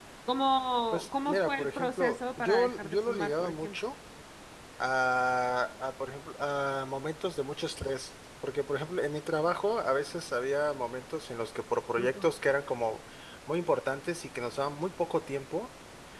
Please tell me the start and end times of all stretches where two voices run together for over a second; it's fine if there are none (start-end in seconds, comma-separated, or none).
0.9-3.7